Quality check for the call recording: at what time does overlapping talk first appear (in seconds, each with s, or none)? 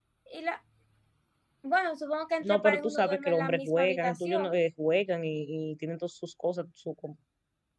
2.4 s